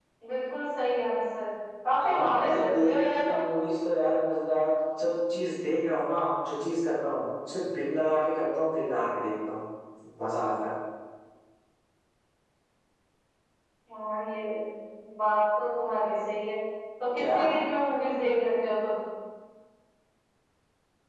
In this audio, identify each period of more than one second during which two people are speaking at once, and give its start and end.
2.0-3.5

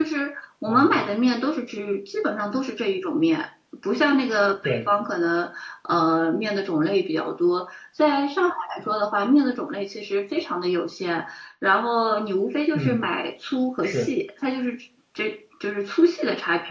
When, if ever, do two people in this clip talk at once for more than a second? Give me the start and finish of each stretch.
none

